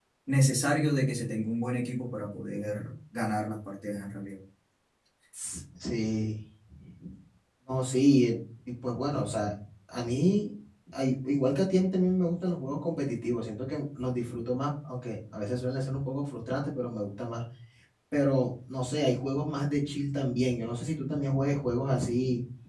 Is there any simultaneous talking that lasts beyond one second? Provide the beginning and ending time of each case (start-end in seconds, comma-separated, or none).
none